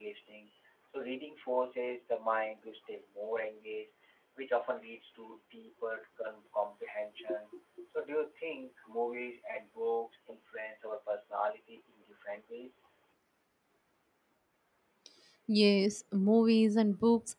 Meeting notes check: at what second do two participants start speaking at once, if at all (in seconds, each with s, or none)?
none